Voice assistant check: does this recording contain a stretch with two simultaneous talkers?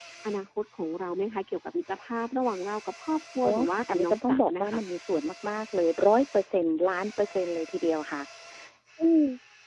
Yes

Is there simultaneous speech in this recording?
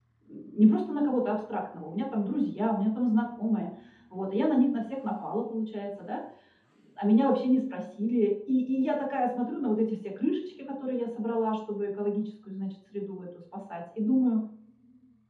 No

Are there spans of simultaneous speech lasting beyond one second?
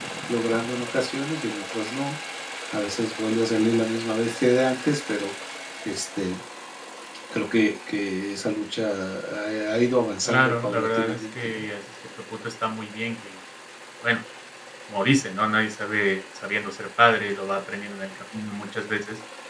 Yes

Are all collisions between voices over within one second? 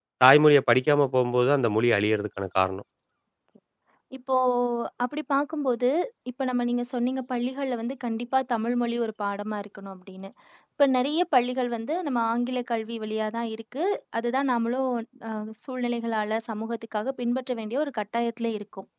Yes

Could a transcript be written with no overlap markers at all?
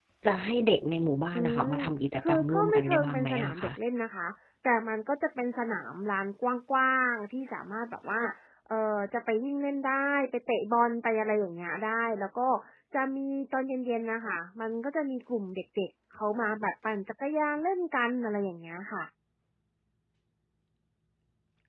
No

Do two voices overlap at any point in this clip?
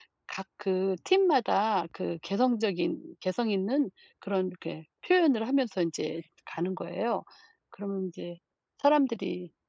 No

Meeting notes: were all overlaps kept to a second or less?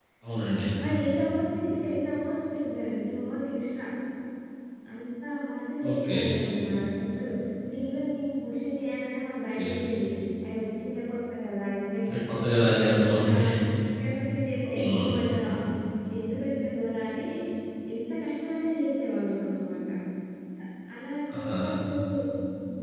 Yes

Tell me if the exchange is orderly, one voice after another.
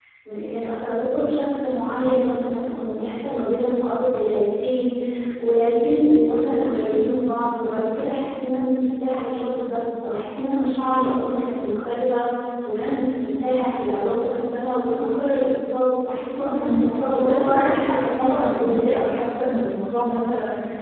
No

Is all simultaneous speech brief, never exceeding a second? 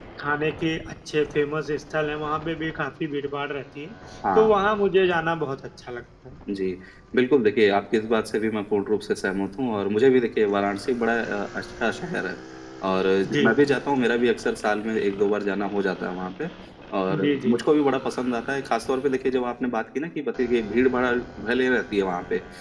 Yes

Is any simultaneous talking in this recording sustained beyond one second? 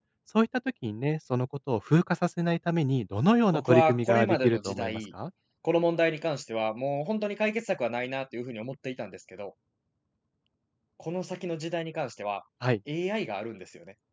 Yes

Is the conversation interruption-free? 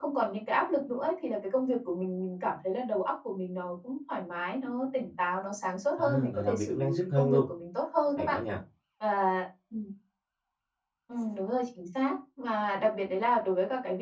No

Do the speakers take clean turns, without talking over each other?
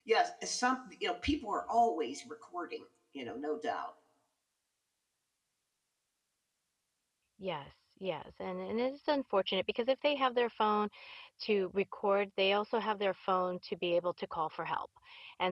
Yes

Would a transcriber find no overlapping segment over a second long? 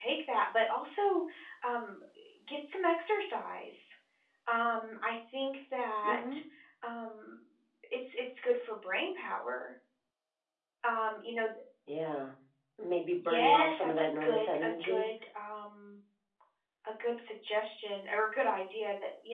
No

